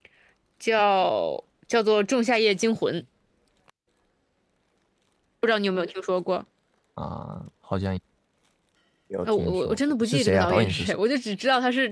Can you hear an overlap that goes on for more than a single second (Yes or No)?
Yes